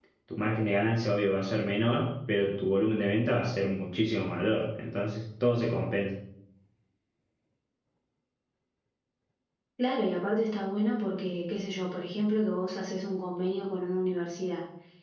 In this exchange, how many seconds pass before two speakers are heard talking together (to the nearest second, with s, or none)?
none